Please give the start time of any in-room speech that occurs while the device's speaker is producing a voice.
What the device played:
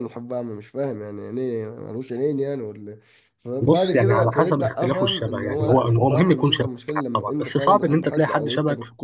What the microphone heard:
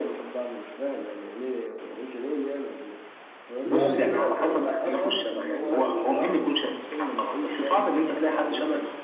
3.7 s

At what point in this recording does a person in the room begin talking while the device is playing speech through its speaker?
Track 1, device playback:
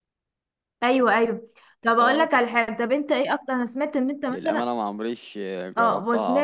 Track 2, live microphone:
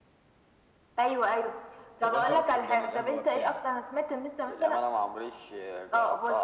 2.0 s

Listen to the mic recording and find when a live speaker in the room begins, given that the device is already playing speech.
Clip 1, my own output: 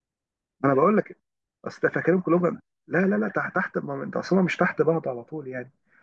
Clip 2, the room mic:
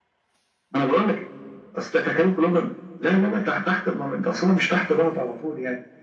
none

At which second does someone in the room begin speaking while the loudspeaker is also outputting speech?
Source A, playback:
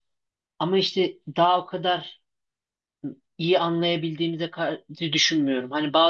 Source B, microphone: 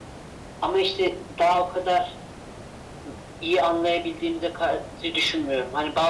none

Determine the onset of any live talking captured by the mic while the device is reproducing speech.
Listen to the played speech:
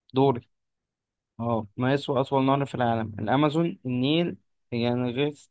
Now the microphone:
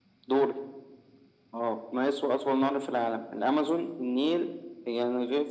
none

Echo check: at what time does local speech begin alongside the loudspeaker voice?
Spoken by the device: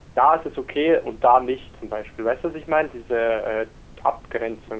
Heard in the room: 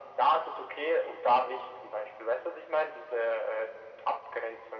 none

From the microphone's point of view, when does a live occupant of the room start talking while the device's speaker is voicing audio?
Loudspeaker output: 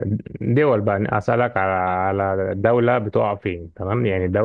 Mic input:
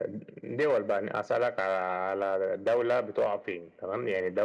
none

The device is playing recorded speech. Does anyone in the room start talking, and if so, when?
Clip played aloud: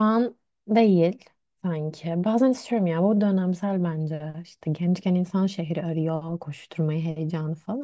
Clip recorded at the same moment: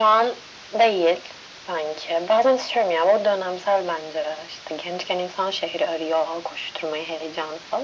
none

